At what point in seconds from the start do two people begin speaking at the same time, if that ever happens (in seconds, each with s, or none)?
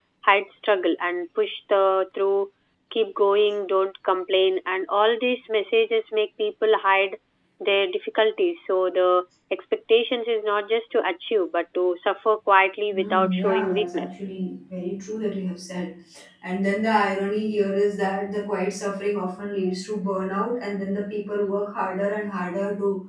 12.9 s